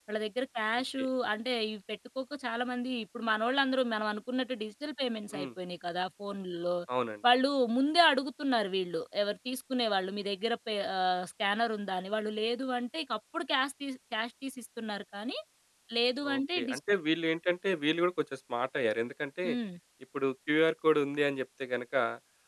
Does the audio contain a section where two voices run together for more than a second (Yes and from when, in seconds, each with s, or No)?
No